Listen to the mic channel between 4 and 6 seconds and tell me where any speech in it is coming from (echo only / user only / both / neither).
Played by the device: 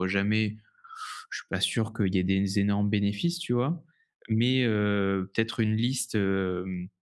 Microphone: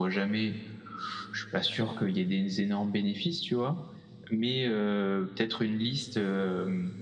echo only